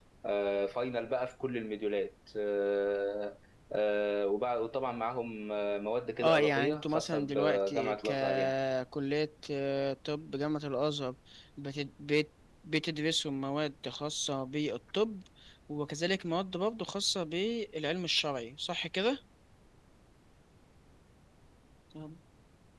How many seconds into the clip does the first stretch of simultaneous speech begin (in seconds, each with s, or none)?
6.2 s